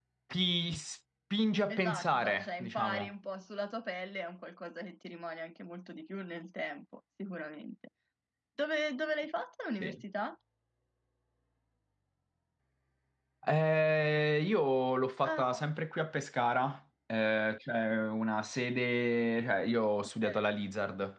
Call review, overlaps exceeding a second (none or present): present